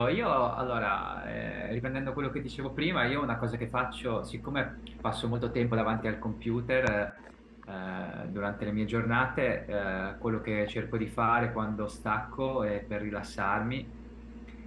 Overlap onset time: none

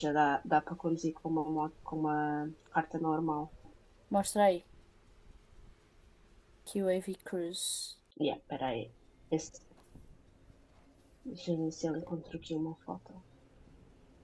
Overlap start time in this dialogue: none

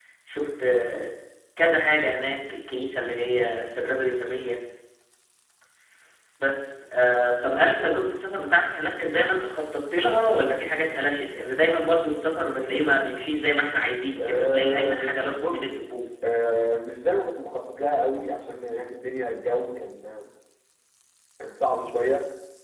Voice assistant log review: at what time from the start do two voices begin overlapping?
14.2 s

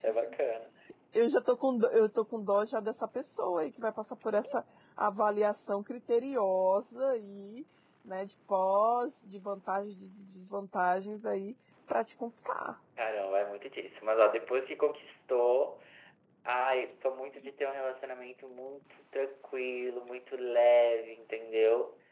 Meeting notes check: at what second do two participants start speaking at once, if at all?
none

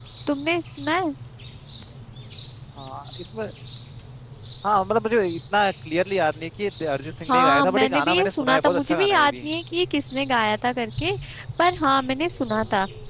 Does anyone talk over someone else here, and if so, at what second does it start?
7.3 s

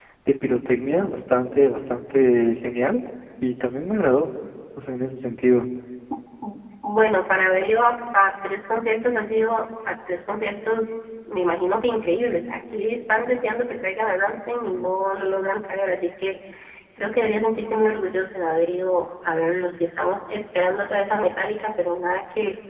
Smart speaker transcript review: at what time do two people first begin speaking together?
none

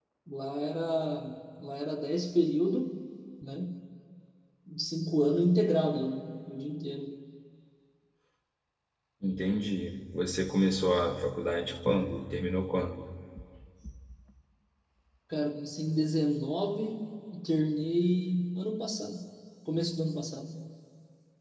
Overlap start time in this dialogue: none

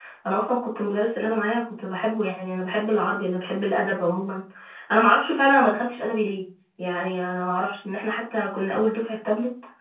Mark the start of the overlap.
none

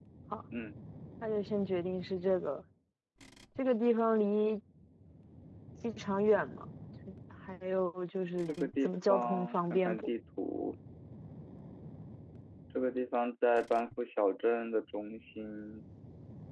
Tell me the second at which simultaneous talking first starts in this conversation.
8.5 s

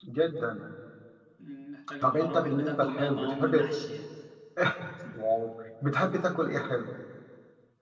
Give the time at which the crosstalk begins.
2.0 s

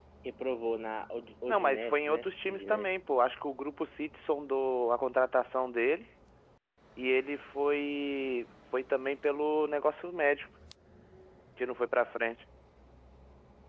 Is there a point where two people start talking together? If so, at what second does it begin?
1.5 s

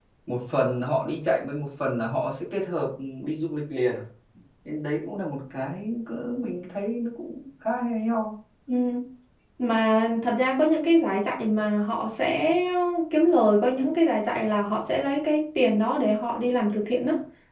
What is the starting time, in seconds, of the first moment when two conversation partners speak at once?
none

